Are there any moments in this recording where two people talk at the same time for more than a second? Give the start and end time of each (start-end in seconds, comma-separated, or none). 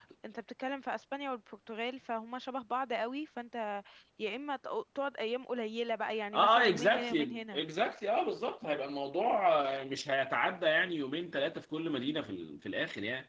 6.3-7.6